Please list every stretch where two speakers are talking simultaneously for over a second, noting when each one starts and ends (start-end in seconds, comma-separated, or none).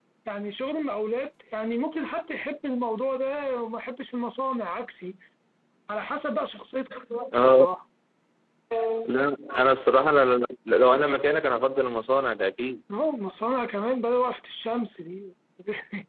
none